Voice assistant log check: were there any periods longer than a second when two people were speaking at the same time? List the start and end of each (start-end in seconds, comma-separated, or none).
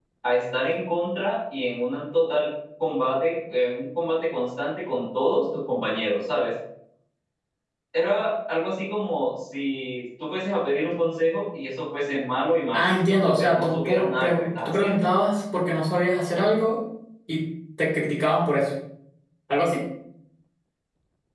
12.7-15.1